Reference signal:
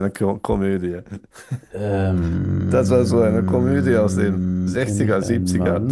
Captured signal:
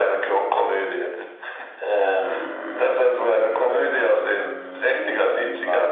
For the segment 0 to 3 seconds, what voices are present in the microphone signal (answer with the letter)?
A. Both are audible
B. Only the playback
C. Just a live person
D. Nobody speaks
B